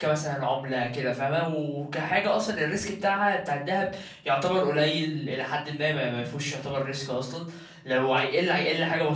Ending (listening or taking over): listening